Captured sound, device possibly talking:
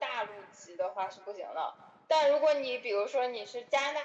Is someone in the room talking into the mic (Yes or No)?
No